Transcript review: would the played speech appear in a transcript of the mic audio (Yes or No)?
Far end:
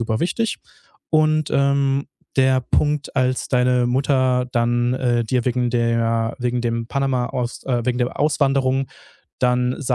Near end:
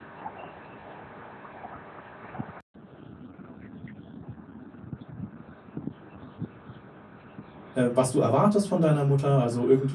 No